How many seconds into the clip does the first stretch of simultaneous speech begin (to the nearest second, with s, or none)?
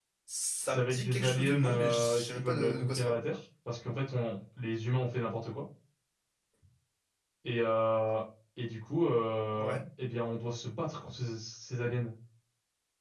1 s